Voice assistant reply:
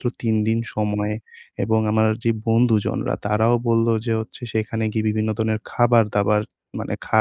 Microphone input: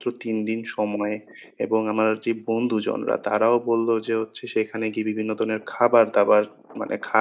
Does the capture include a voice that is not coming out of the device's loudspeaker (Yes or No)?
No